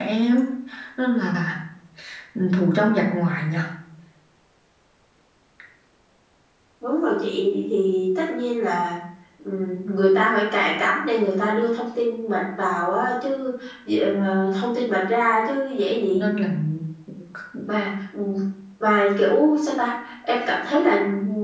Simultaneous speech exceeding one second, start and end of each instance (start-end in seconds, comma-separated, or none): none